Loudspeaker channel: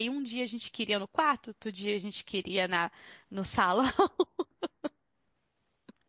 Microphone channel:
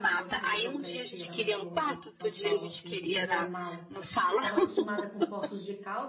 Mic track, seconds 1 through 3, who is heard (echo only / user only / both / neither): both